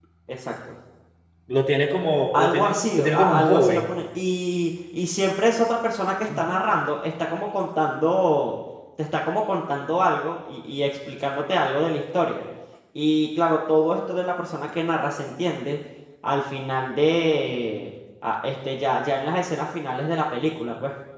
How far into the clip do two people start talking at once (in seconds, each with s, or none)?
2.3 s